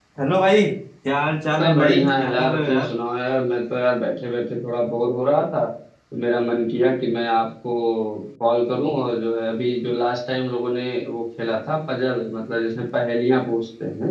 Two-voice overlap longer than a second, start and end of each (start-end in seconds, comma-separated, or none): 1.6-2.9